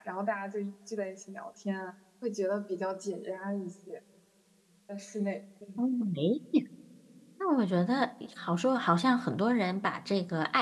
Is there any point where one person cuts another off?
No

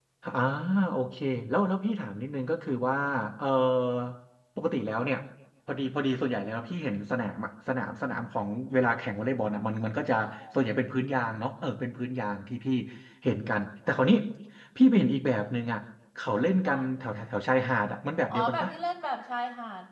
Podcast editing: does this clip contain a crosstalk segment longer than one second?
No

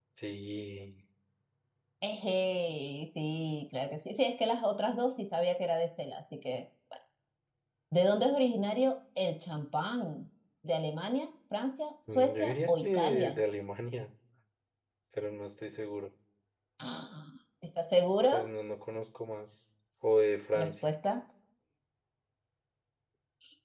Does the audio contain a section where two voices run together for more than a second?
Yes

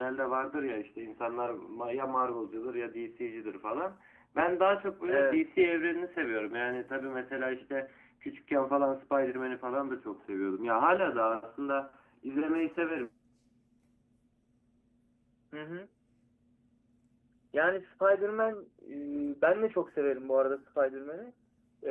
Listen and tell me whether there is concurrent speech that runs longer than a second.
No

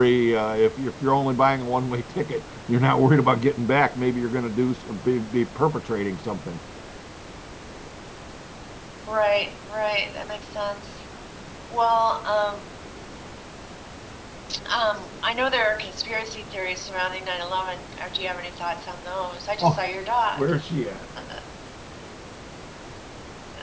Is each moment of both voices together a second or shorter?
Yes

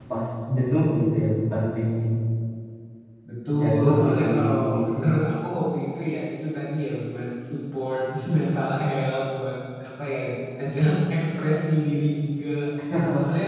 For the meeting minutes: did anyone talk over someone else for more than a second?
Yes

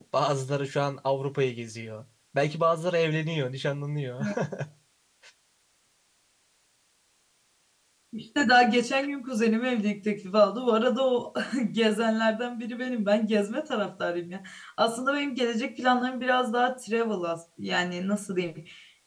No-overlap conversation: Yes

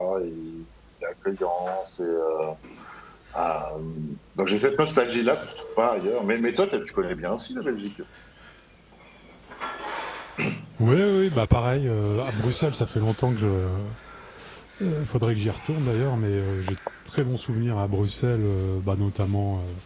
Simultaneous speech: No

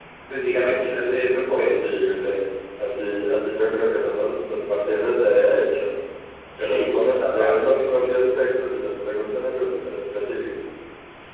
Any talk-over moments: Yes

